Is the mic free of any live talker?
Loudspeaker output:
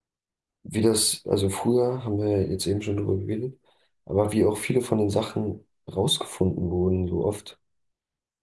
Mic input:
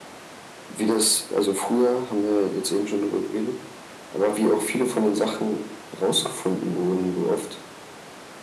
Yes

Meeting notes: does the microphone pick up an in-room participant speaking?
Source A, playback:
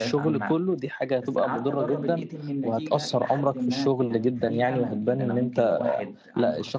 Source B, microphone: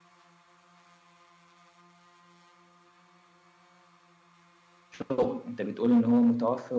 Yes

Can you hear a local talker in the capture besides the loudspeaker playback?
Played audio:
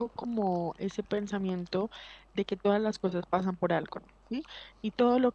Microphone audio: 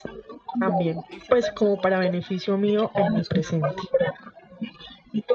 Yes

